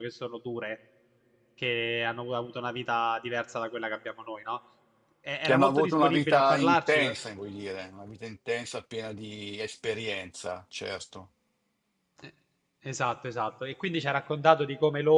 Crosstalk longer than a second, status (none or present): present